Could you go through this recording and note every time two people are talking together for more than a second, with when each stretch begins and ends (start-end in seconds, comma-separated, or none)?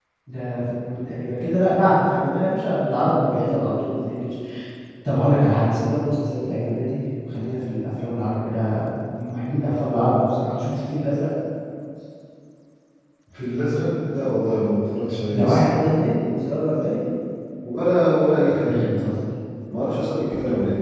none